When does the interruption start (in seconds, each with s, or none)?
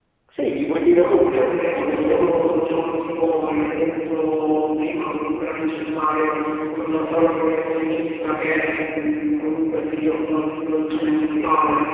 1.0 s